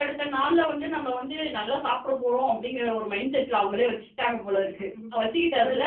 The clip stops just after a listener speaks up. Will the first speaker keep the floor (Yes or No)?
No